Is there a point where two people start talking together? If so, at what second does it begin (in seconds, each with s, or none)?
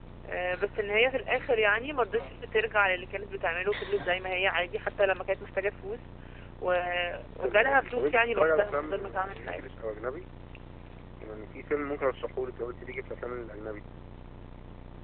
7.4 s